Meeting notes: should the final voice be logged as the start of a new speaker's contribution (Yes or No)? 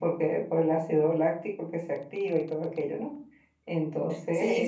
Yes